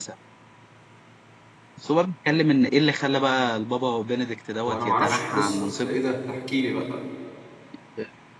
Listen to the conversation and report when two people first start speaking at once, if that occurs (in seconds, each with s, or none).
4.6 s